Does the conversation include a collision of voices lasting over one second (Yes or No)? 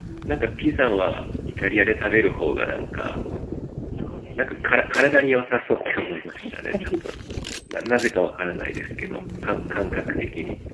Yes